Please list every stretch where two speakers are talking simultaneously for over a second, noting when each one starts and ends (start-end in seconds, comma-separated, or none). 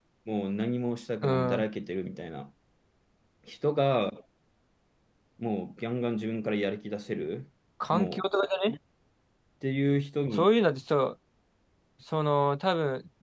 none